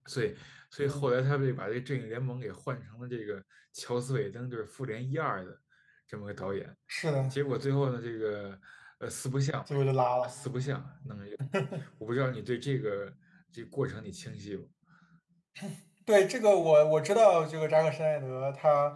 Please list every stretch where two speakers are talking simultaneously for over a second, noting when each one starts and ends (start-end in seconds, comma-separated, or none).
none